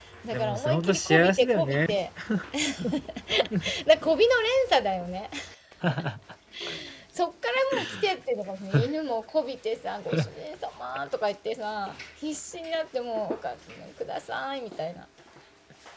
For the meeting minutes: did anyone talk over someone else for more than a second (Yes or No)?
Yes